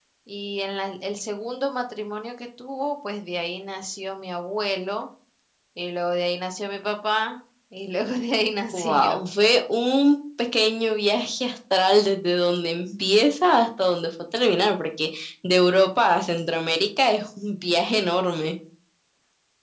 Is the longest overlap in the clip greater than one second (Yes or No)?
No